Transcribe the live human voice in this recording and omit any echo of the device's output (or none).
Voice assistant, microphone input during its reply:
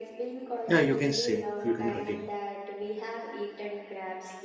yeah, you can say, you can continue.